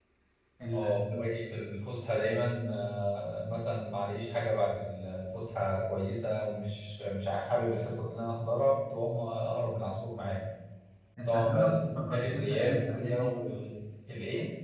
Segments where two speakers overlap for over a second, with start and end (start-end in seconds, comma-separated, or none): 11.2-13.2